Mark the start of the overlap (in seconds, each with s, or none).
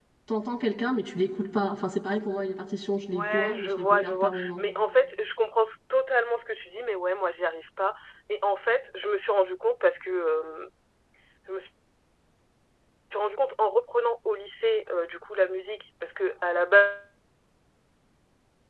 3.1 s